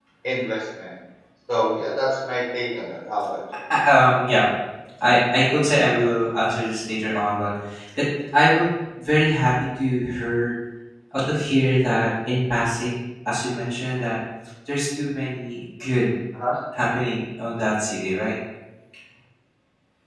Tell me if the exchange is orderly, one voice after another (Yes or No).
Yes